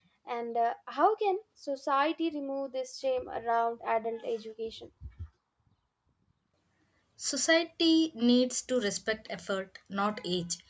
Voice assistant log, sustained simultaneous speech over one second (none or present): none